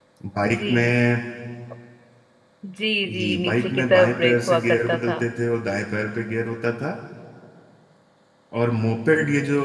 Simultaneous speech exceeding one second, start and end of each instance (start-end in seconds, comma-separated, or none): 3.1-5.2